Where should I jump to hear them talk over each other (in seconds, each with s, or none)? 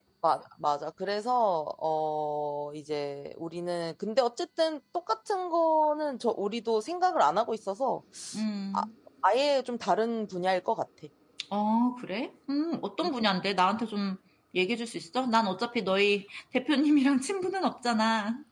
none